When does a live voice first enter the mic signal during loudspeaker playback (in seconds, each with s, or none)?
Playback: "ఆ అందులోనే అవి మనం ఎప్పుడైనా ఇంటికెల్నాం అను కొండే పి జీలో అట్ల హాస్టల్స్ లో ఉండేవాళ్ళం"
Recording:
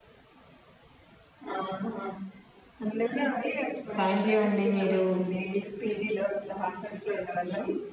4.0 s